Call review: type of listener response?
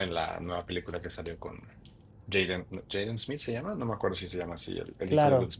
taking over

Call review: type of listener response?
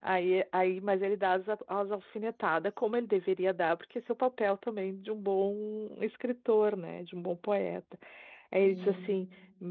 listening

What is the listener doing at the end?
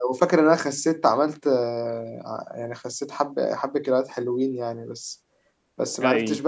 listening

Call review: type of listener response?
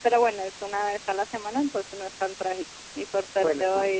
listening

